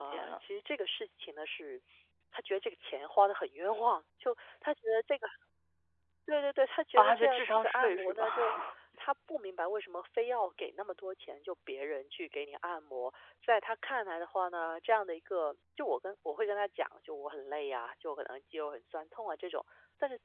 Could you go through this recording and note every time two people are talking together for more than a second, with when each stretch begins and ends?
7.0-8.6

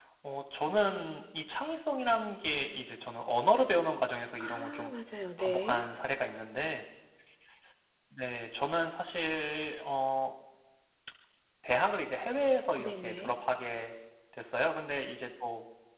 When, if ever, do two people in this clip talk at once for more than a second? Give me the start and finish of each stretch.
none

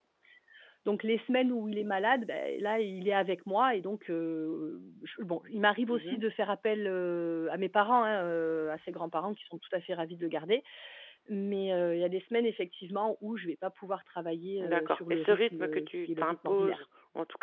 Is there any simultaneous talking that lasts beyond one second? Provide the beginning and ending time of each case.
14.6-16.8

